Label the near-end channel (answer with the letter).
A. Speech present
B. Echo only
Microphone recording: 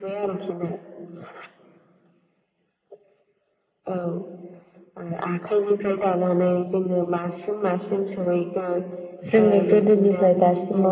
A